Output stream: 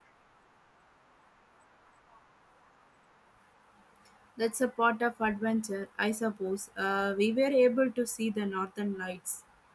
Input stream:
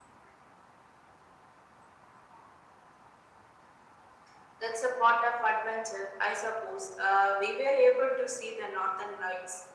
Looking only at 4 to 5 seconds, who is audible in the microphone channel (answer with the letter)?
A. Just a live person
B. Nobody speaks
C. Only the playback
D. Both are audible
C